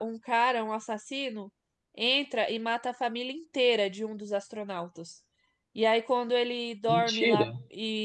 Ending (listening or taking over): listening